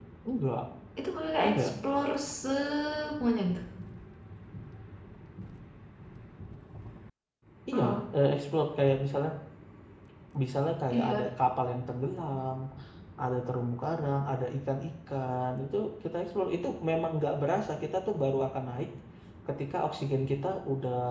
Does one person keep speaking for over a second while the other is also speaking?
No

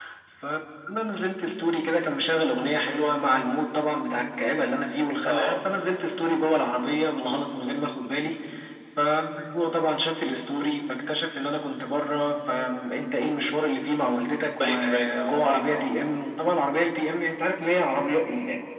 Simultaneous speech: Yes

